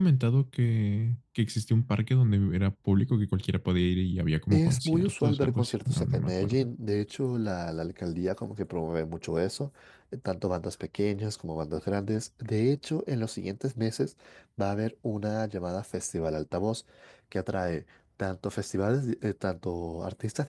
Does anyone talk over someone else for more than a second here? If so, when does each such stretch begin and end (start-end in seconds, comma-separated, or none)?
4.5-6.7